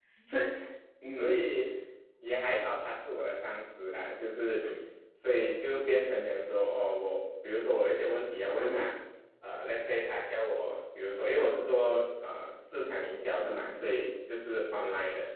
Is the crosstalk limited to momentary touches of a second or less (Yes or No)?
Yes